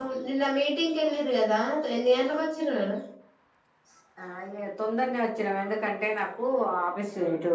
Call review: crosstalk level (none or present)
none